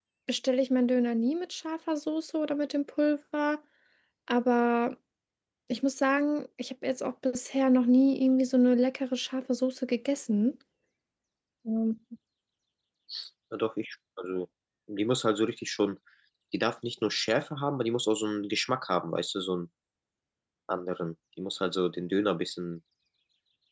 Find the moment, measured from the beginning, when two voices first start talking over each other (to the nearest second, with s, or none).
none